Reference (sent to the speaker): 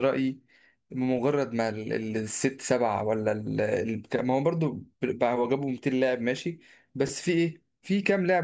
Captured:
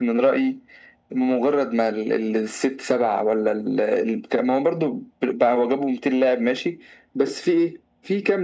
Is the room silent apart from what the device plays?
Yes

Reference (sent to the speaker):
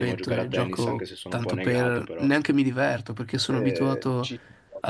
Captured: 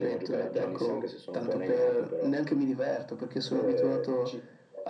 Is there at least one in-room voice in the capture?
No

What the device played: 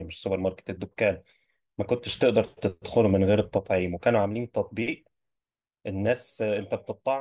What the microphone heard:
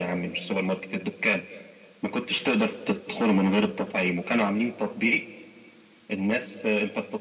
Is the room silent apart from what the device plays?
Yes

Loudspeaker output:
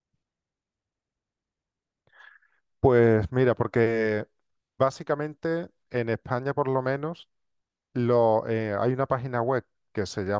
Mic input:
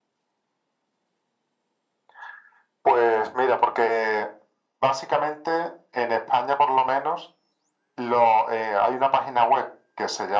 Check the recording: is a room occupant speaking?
No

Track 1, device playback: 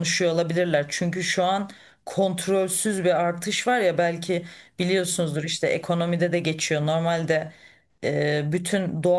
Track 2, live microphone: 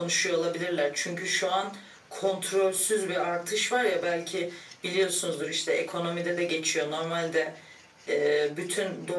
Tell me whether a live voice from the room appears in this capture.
No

